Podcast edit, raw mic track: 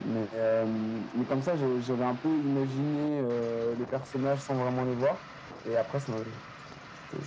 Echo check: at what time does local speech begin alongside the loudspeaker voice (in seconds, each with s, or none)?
none